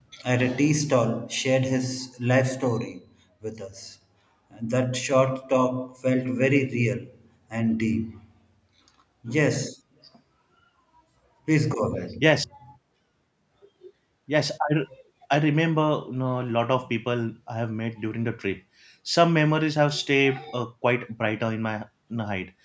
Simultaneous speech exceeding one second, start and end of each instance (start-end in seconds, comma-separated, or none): none